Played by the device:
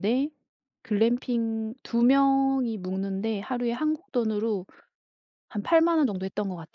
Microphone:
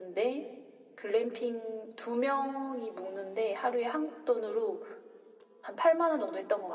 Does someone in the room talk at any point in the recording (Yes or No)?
No